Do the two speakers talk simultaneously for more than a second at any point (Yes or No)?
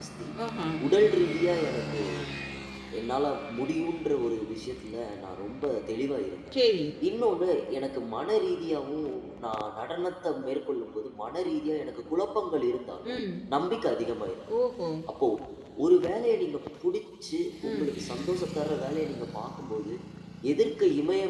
No